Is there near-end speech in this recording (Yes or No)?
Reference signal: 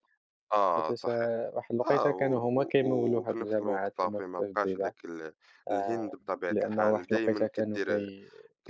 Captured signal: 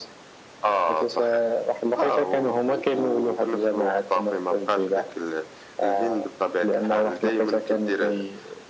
No